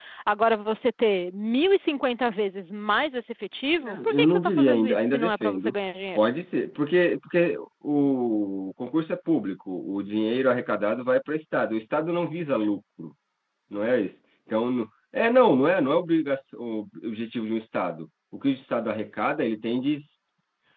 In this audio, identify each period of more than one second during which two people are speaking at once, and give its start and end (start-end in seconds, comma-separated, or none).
3.8-5.7